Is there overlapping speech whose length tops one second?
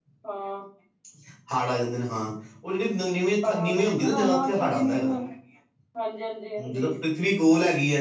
Yes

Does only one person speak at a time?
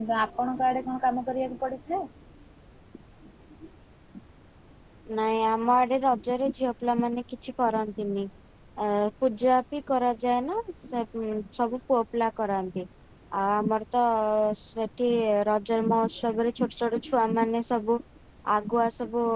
Yes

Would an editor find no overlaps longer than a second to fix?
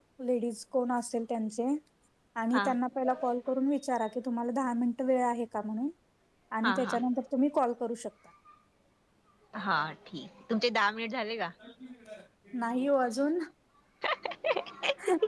Yes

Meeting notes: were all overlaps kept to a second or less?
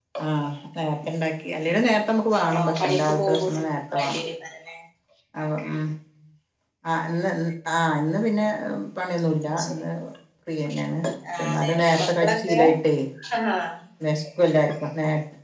No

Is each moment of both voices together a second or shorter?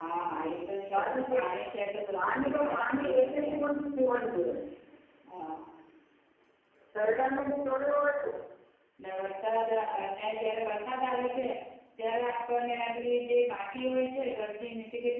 No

